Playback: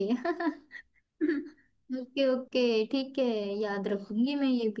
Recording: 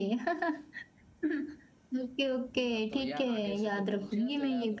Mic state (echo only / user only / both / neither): both